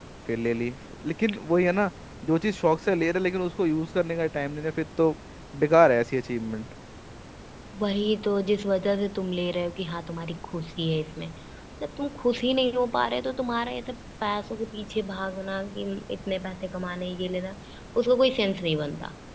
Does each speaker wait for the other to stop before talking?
Yes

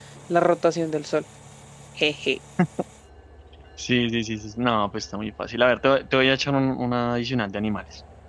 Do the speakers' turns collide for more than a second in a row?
No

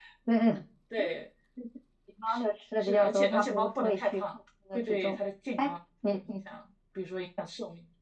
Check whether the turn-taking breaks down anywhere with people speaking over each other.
Yes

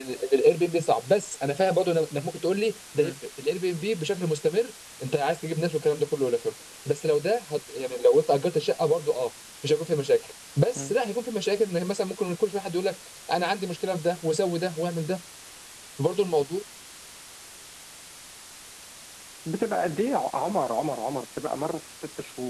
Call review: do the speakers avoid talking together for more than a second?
Yes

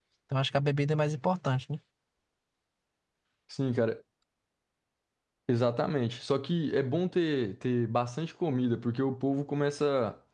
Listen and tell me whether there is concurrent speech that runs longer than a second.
No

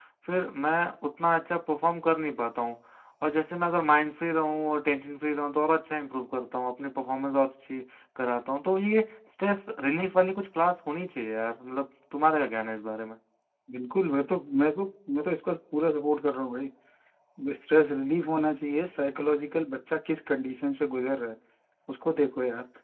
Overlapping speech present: No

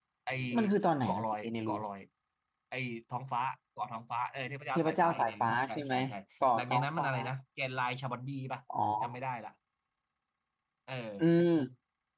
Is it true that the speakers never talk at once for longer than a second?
No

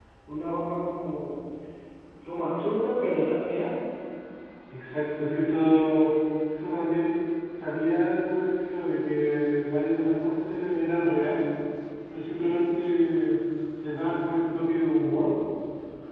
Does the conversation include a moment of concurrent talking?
No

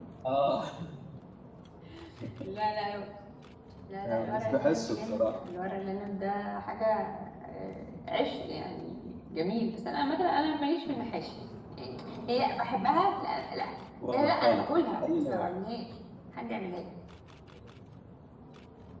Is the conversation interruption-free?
No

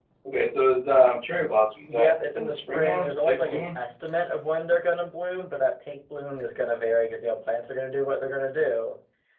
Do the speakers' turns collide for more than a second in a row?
Yes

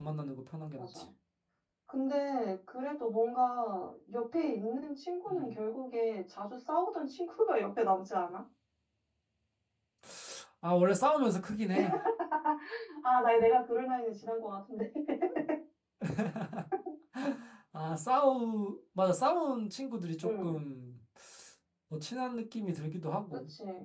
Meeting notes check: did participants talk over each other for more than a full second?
No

